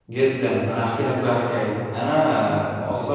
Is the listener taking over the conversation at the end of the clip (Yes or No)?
No